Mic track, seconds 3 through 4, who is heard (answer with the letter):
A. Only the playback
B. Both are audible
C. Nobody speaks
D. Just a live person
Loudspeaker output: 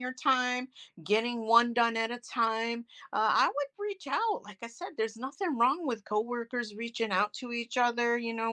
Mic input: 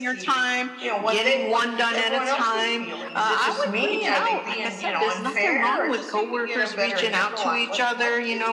B